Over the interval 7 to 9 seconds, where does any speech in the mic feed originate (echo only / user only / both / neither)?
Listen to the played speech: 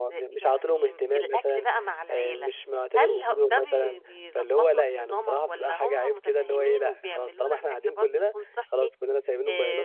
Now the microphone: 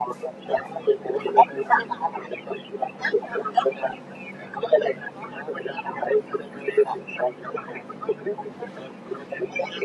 echo only